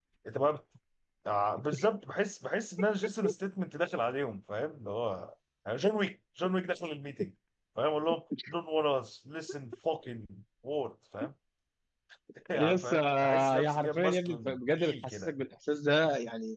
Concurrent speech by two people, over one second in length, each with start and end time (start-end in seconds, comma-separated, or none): 12.5-15.3